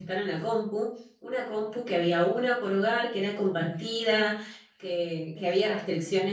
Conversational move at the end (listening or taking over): listening